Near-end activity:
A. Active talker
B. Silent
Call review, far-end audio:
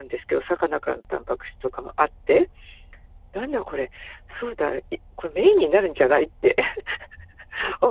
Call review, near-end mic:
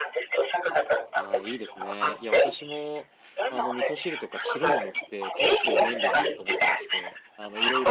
A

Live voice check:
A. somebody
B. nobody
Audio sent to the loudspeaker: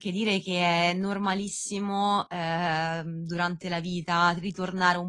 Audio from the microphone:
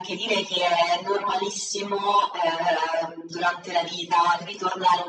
B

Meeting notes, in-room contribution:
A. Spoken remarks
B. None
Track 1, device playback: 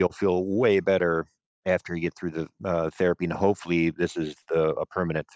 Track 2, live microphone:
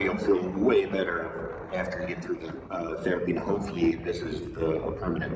B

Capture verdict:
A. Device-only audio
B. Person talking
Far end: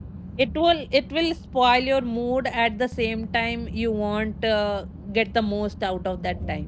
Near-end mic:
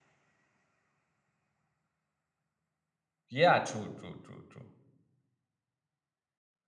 B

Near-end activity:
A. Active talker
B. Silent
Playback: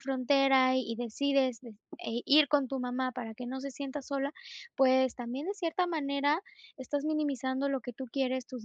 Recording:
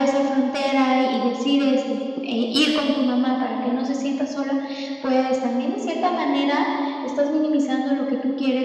B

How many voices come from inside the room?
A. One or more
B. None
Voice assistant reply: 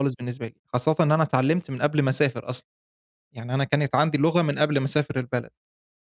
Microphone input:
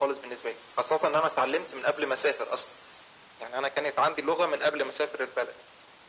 B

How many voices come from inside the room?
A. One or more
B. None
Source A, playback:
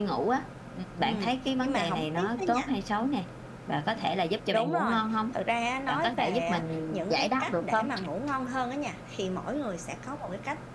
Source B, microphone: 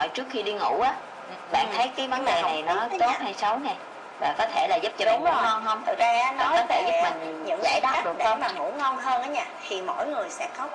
B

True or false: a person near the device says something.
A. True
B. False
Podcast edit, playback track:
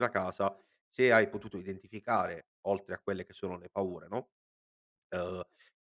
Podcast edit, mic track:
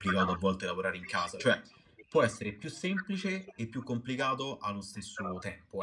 A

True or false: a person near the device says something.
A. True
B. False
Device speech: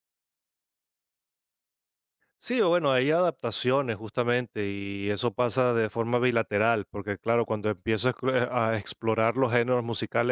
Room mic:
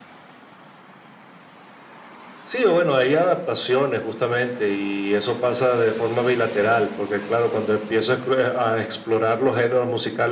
B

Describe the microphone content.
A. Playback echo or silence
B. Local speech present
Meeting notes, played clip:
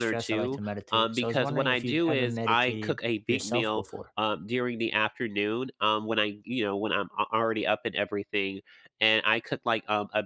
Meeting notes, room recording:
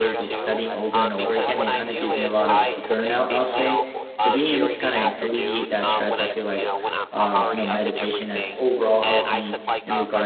B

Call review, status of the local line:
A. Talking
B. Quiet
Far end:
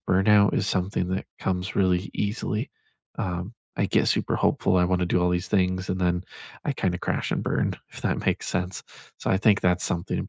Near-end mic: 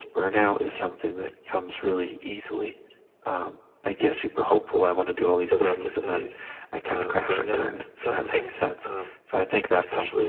A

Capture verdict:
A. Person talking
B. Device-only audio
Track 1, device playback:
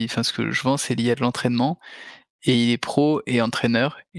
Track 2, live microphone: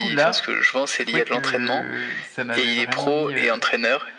A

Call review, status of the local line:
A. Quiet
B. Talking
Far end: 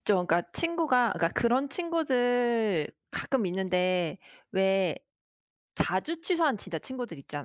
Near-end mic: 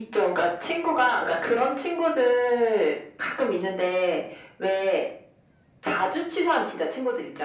A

